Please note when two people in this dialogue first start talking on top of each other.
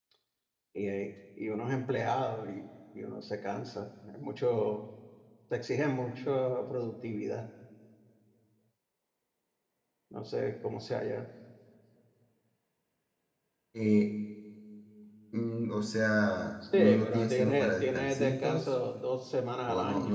17 s

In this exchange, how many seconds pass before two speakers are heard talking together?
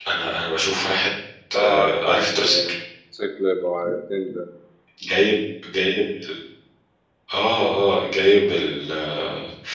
2 s

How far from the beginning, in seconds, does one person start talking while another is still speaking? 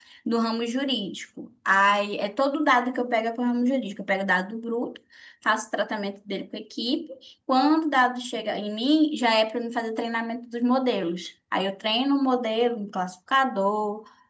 none

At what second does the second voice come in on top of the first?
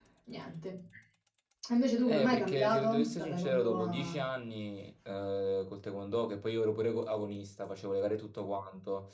2 s

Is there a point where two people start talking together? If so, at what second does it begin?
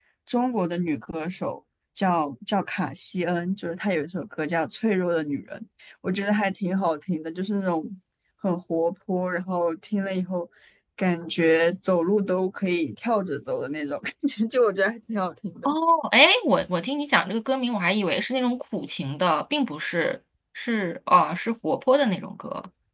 none

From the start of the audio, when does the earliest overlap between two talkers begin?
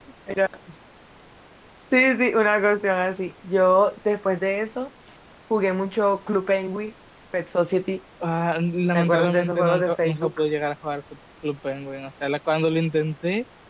9 s

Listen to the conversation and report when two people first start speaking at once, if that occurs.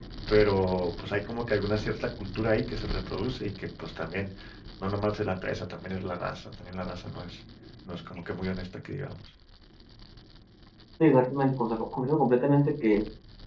none

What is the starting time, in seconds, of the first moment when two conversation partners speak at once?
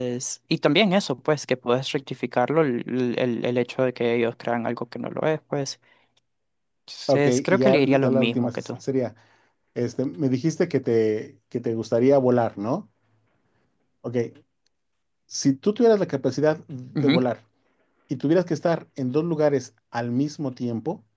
7 s

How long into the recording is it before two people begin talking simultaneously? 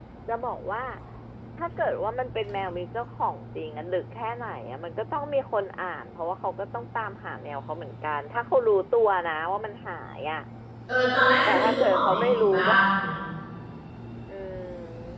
11 s

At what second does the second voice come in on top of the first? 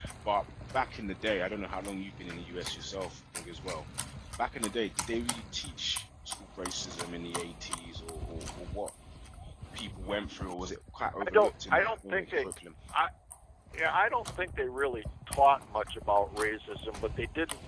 11 s

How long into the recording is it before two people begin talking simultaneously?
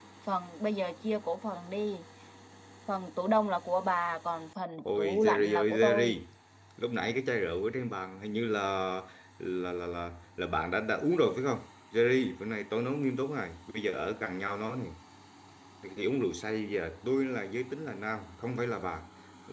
5 s

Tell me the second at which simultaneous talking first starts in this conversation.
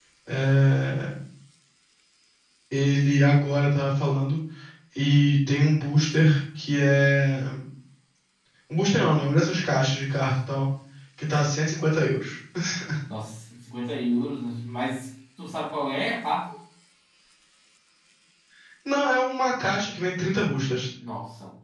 none

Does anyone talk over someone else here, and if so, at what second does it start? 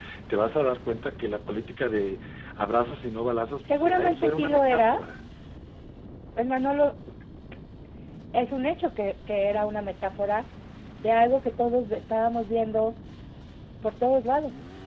4 s

